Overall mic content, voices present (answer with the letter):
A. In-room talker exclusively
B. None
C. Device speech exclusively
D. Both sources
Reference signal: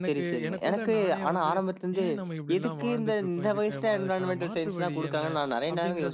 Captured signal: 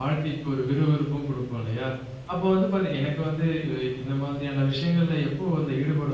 A